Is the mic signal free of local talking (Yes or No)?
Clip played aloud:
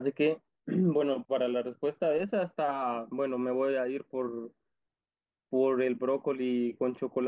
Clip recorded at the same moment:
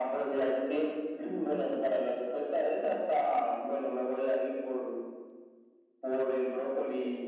Yes